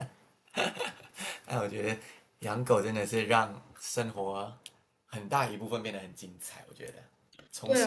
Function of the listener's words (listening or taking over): taking over